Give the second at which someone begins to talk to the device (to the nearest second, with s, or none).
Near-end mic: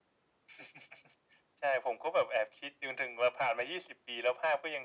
none